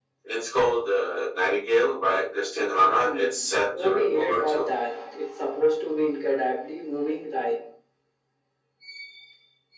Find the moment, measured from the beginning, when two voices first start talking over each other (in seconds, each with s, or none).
2.7 s